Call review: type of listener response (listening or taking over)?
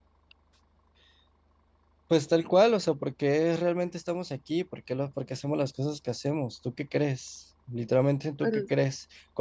listening